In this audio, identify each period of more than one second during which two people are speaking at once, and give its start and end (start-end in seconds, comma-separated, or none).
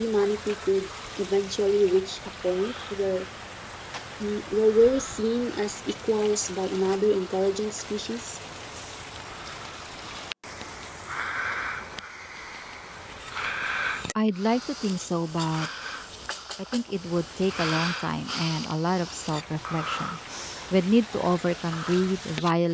none